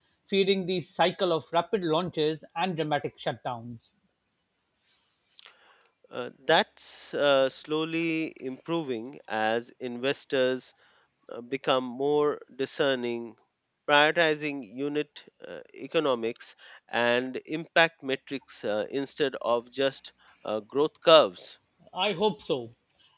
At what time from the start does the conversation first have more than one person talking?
none

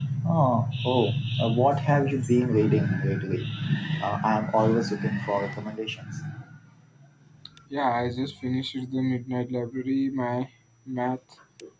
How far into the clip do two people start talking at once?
none

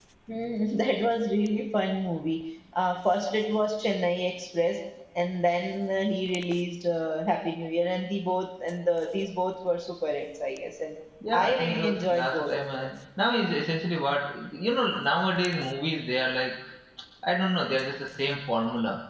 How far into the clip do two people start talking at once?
11 s

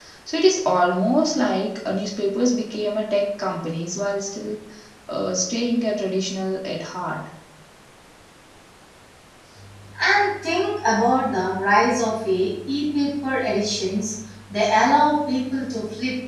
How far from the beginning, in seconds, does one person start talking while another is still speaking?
none

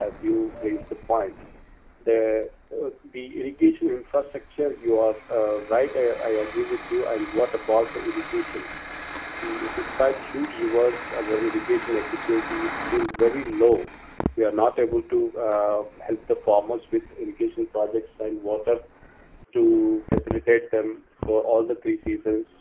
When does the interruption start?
none

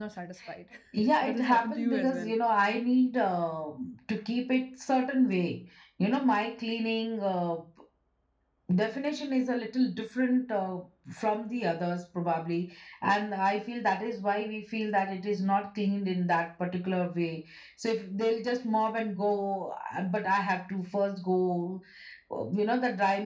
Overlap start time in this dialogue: 1 s

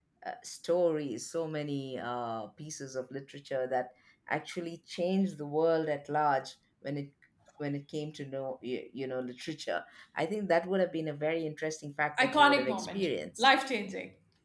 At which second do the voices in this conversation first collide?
12 s

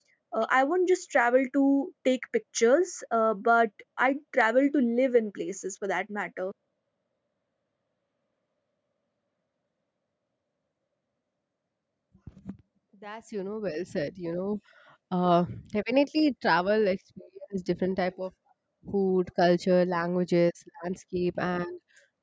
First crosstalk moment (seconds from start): none

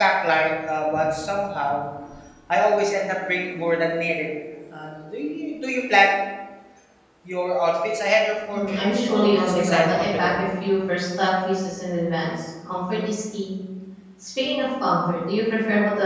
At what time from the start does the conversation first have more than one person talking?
9 s

